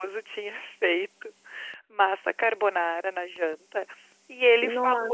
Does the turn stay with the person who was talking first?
Yes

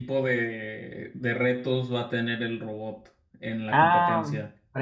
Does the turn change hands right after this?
Yes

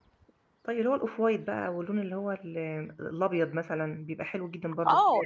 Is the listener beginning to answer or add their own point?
Yes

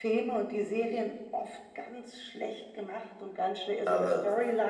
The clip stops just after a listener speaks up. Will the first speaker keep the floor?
Yes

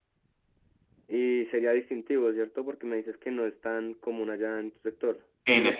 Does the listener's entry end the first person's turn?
No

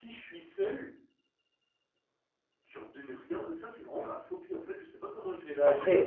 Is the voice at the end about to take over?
Yes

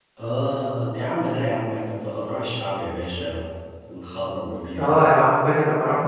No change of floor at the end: No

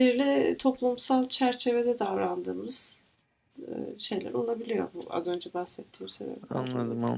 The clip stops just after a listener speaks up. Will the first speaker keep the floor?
No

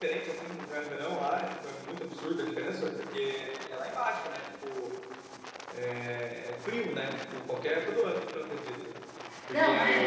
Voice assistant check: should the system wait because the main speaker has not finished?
Yes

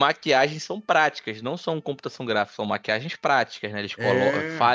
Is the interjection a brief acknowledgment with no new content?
Yes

